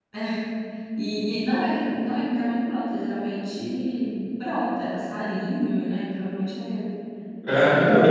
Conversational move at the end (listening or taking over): taking over